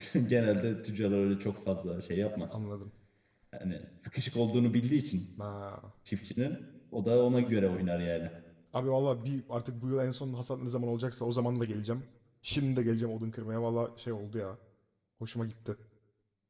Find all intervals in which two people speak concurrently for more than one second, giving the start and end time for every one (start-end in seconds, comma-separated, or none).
none